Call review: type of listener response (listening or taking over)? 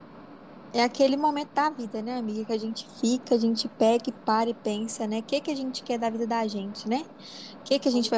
listening